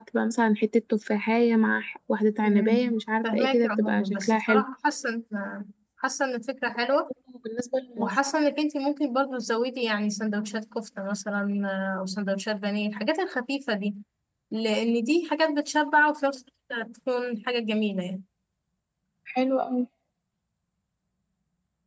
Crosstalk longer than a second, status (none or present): present